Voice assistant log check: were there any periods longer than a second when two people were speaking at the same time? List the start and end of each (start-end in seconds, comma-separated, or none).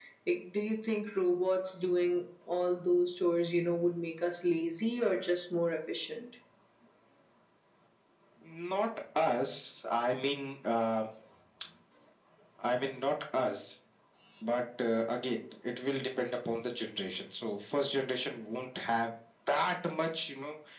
none